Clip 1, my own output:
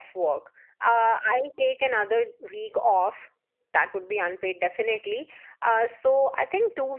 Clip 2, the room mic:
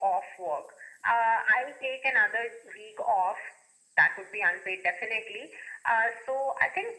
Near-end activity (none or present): none